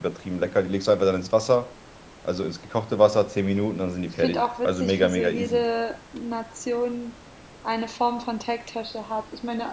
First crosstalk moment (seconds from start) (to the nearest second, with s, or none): 4 s